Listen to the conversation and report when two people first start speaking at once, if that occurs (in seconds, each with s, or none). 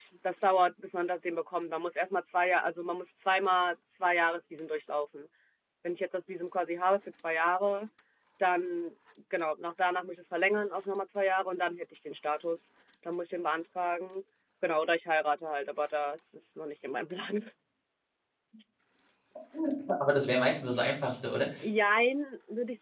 none